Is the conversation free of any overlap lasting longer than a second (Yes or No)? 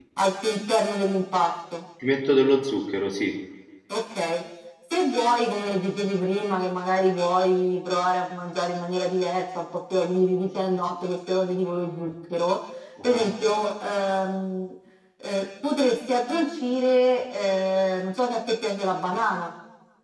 Yes